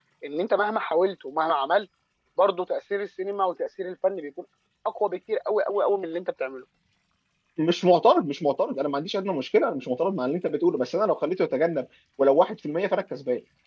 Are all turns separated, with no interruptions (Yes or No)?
Yes